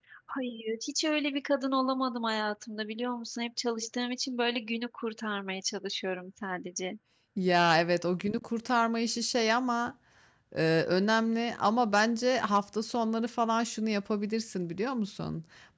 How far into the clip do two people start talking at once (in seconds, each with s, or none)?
none